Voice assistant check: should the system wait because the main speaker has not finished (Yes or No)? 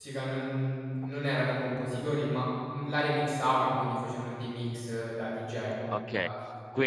No